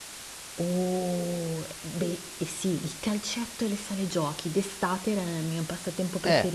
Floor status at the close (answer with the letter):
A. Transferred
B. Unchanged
A